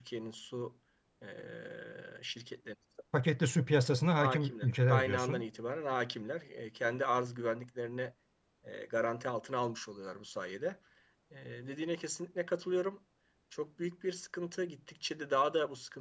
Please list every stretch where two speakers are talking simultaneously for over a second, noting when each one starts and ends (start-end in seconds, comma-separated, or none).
4.2-5.4